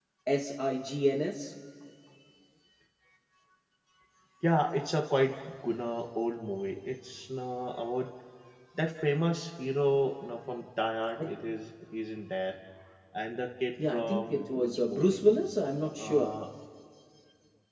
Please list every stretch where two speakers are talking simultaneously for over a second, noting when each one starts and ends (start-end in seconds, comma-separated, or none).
13.9-15.3